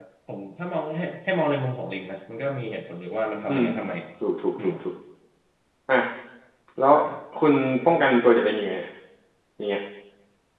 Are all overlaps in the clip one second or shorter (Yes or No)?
Yes